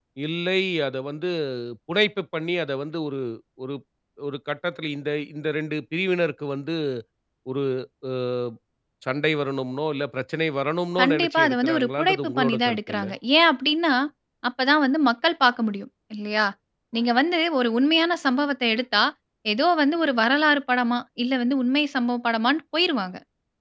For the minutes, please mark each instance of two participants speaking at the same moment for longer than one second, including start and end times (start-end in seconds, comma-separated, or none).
11.0-13.1